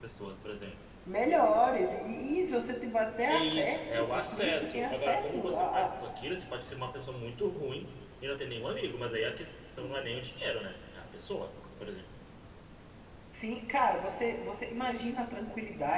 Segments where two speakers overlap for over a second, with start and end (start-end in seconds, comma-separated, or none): 3.3-5.9